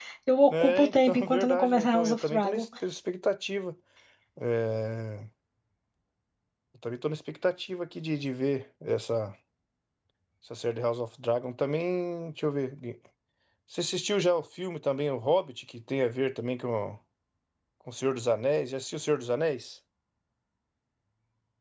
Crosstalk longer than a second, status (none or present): present